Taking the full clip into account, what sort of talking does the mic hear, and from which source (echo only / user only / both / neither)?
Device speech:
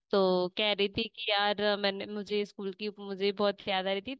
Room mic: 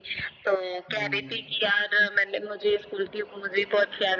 both